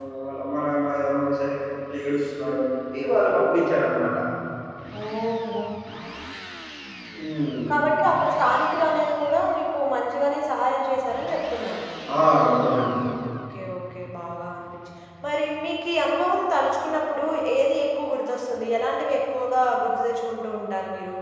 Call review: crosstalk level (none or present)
none